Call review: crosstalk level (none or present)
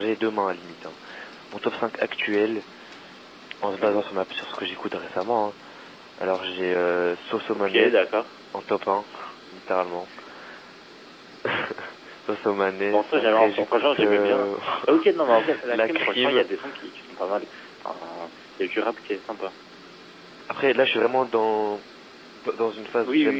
present